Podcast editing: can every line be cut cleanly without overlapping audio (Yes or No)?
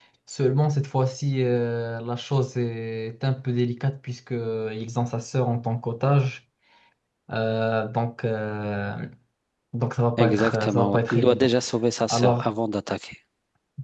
No